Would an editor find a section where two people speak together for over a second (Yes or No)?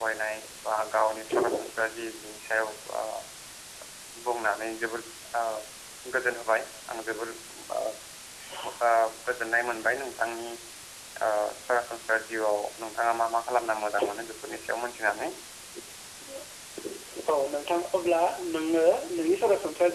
No